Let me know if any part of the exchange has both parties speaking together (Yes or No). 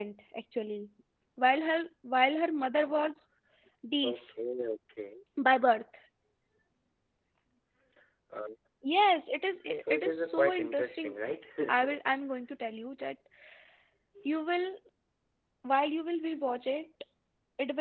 Yes